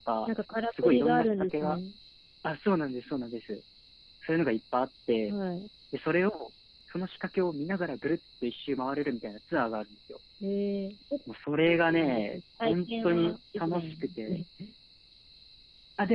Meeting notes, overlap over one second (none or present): present